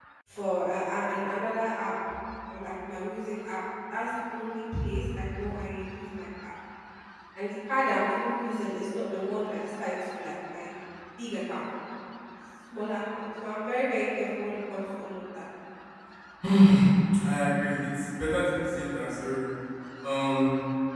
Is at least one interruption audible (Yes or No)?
No